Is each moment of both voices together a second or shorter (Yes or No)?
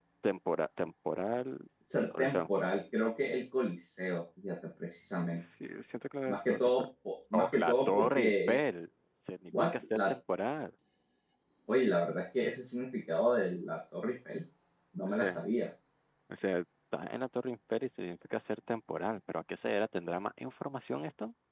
No